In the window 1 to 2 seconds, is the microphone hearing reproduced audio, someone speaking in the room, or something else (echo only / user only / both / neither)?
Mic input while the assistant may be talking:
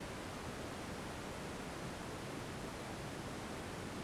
neither